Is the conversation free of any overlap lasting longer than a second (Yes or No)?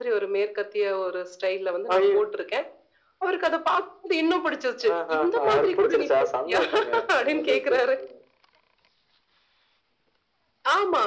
No